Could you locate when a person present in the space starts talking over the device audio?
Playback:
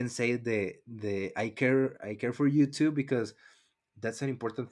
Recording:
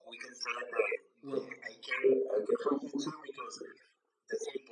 1.2 s

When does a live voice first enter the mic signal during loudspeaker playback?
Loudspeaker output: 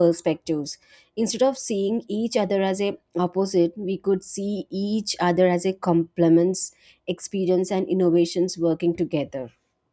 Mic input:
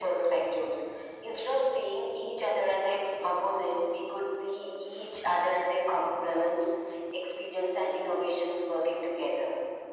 none

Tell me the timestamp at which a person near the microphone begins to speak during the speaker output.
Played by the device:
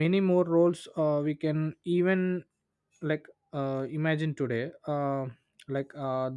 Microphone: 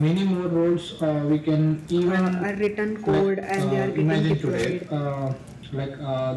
2.0 s

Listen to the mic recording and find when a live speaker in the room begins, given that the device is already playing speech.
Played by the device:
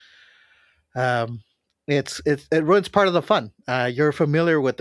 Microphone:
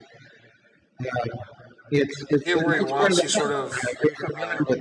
2.4 s

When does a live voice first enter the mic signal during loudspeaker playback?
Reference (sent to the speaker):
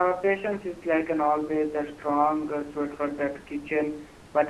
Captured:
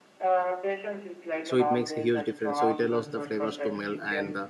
1.4 s

